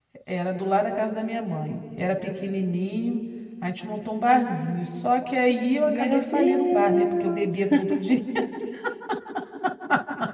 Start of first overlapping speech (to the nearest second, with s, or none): 6 s